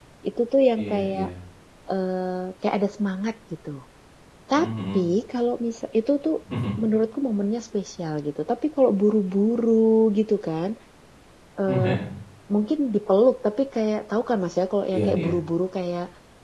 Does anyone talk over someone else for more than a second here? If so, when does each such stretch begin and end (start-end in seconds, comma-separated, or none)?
none